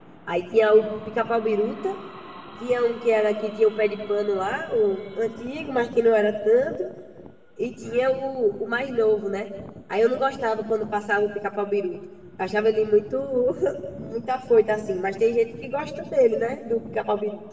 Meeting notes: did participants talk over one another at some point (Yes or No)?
No